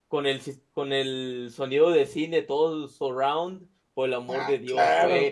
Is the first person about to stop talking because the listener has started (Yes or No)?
No